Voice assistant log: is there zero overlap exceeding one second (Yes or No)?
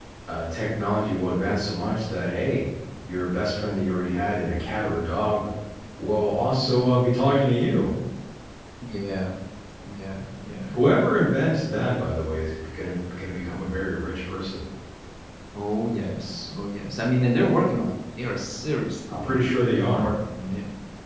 Yes